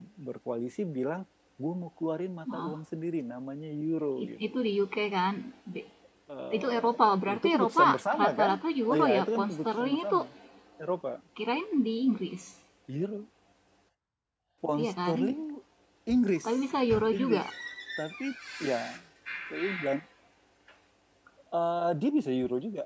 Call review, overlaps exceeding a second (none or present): present